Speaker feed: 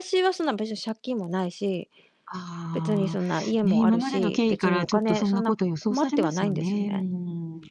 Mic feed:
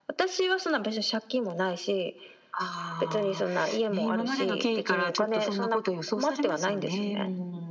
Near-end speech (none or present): none